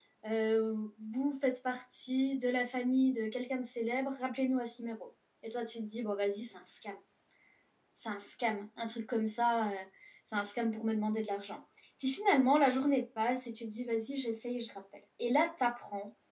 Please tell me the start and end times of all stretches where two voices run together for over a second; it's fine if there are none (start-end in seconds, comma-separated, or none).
none